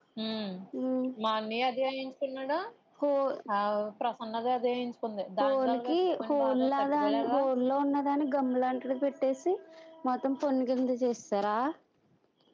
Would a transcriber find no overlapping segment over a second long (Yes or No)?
No